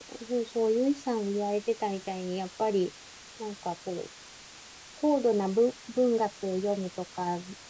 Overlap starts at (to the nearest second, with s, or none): none